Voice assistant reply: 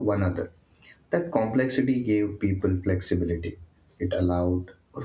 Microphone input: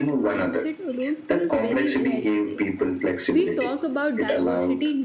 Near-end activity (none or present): present